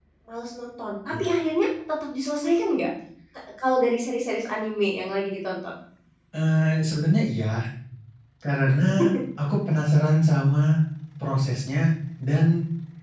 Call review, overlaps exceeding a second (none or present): none